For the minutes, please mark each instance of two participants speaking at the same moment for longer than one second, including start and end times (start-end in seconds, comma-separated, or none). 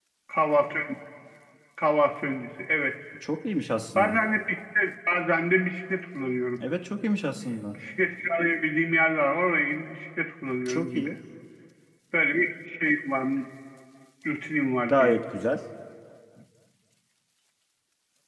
none